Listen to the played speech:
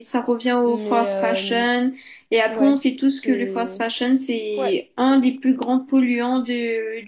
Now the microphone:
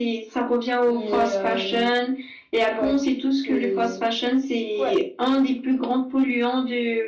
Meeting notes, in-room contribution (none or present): none